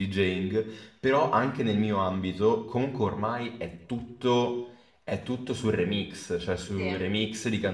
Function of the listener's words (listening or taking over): listening